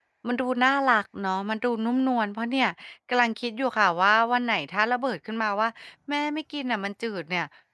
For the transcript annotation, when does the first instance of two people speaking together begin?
none

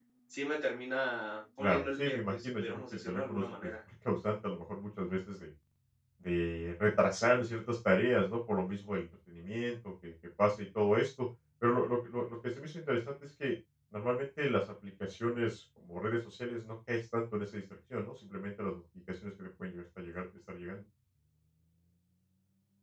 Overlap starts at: 2 s

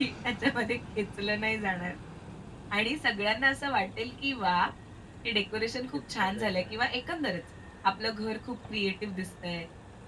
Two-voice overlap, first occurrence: 6 s

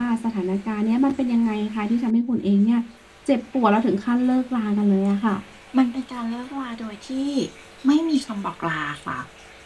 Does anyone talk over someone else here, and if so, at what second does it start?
none

